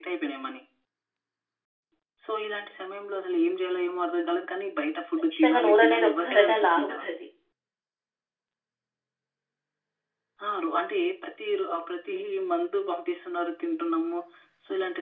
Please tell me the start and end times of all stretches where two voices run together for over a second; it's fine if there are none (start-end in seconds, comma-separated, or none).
5.3-7.0